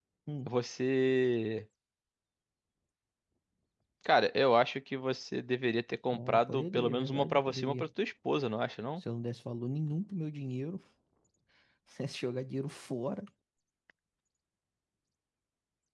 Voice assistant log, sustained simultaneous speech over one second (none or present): present